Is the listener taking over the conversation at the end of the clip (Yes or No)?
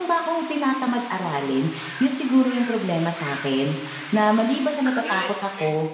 No